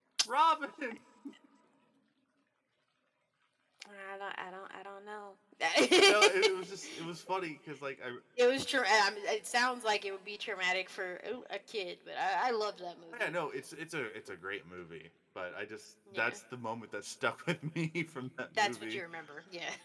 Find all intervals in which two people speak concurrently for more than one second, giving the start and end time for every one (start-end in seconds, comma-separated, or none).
none